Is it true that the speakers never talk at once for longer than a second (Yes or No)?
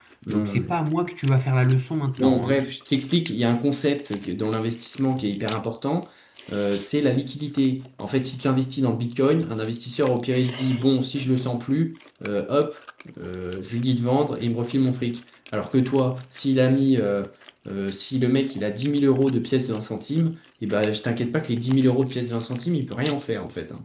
Yes